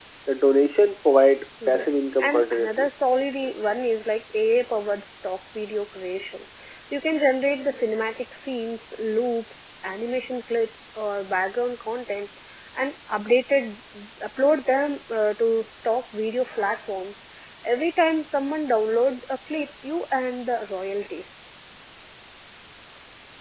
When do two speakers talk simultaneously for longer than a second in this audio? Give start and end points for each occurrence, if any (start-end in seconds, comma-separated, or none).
1.7-2.9